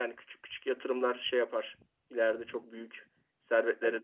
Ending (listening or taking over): taking over